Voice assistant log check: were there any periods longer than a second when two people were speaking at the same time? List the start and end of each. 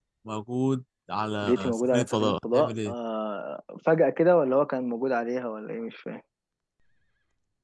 1.4-2.9

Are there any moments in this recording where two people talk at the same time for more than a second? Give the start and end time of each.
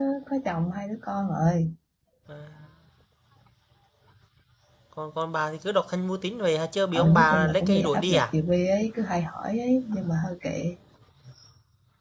6.9-8.2

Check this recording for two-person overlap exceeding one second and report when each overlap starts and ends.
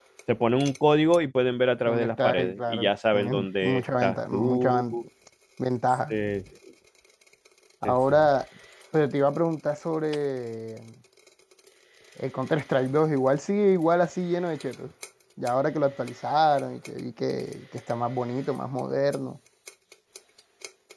1.9-5.0

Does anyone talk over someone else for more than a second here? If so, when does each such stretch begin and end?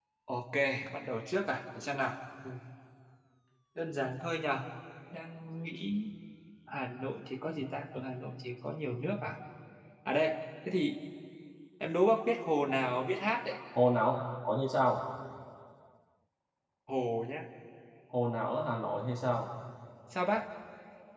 none

